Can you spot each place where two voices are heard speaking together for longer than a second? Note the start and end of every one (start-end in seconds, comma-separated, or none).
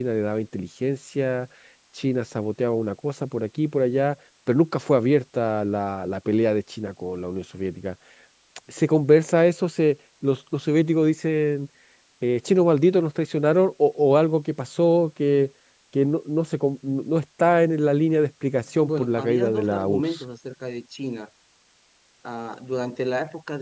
18.8-20.2